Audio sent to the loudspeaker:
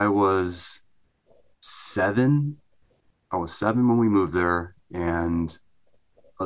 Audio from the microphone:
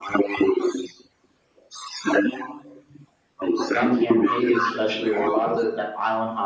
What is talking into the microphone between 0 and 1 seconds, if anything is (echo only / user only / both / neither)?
echo only